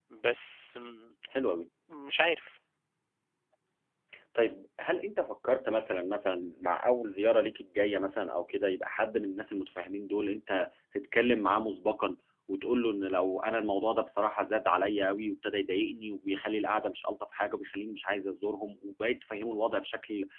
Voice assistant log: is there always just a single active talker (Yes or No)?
Yes